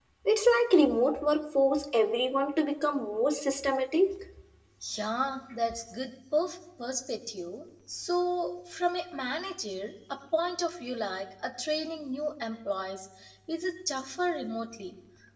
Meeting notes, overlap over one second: none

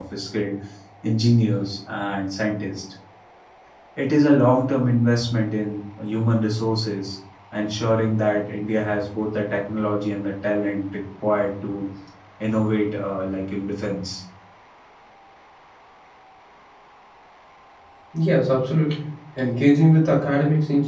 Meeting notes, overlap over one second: none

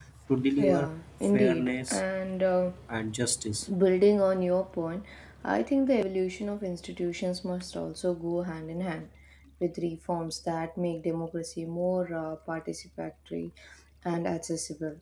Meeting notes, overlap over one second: present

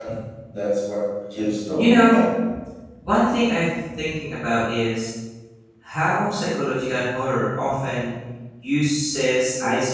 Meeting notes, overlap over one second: none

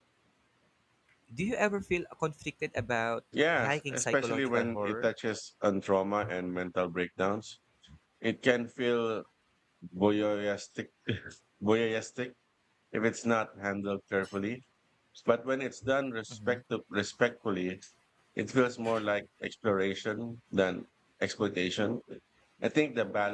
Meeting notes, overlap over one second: present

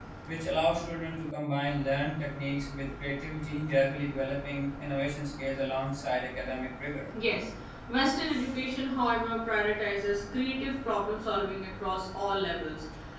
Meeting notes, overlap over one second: none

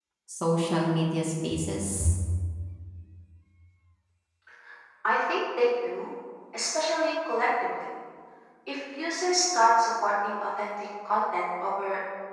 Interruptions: none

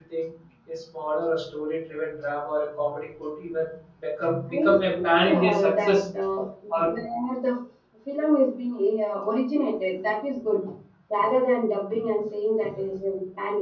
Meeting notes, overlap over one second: present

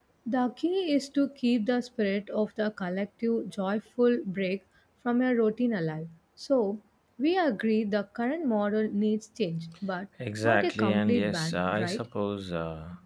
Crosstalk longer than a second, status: present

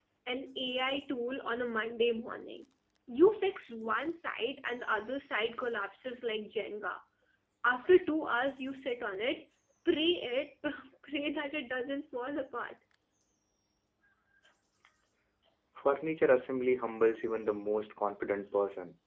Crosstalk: none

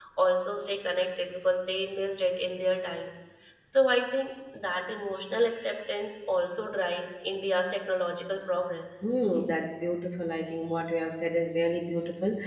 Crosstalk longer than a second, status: none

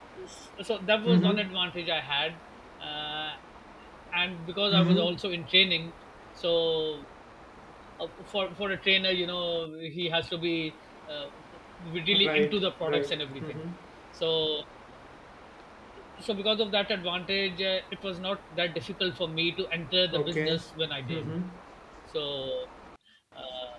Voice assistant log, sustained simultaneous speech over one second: present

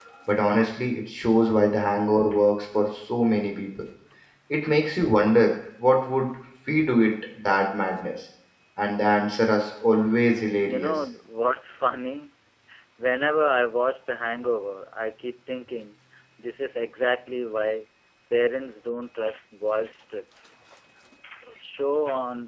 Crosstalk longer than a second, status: none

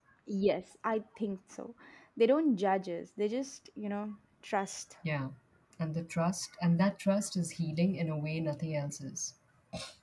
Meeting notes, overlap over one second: none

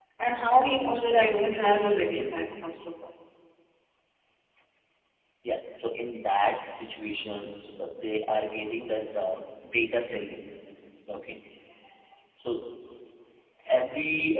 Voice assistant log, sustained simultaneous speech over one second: none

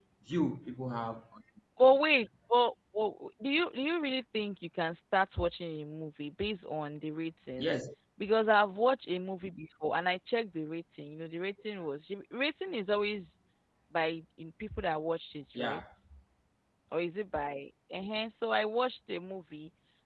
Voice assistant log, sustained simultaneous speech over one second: none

